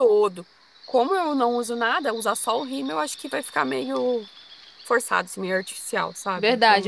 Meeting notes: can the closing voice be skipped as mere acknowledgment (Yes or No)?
No